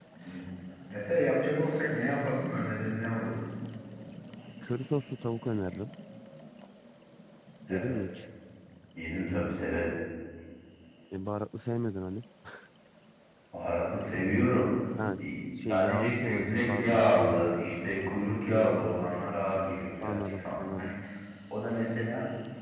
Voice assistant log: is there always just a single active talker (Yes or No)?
No